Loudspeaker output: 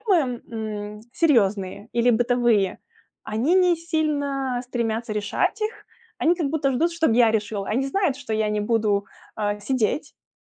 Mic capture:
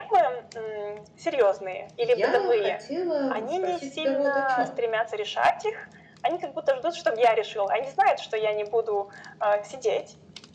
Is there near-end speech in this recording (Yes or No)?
Yes